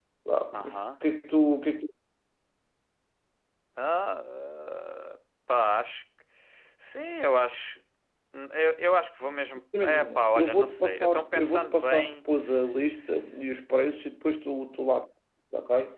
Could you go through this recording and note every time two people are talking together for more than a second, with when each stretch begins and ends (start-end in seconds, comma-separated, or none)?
9.8-12.1